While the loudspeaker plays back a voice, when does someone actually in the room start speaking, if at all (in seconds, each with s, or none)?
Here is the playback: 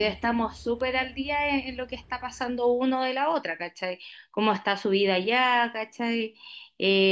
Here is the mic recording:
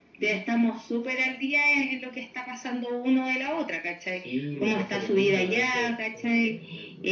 4.1 s